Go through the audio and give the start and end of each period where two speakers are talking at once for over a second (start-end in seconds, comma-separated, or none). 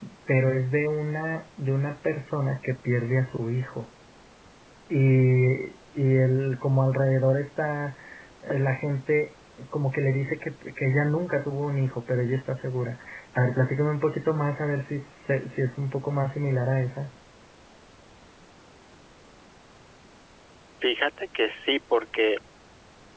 none